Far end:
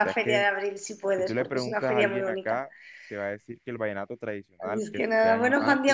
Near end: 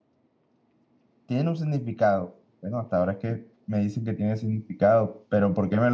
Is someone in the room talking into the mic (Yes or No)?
Yes